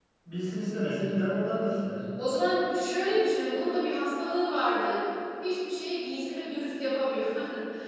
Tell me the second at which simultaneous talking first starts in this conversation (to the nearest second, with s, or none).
none